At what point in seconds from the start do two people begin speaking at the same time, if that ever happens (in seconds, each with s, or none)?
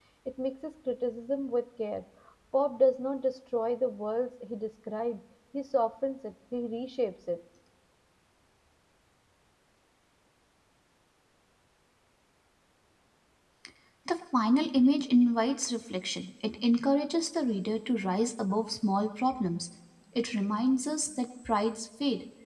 none